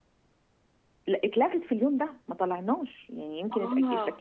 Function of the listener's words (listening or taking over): listening